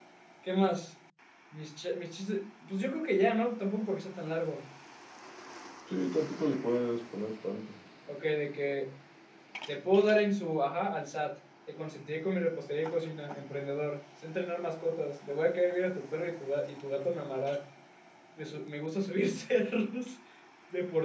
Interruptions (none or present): none